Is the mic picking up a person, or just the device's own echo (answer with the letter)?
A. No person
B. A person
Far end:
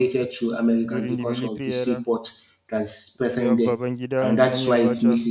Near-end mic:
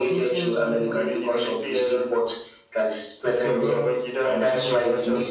B